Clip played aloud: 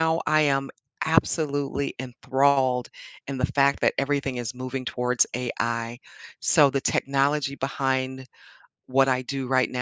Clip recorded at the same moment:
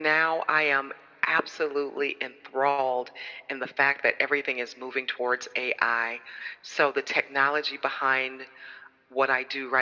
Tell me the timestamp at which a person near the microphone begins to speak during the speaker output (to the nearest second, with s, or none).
none